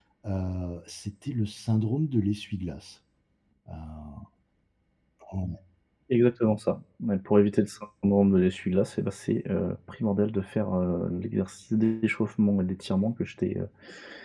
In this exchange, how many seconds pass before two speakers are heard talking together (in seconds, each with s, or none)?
none